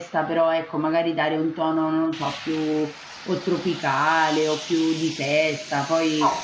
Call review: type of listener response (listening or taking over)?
taking over